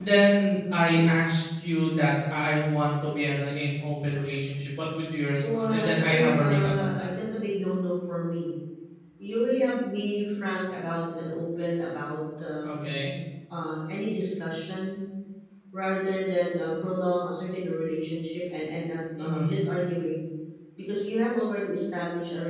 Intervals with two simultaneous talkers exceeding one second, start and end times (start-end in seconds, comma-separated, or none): 5.5-7.1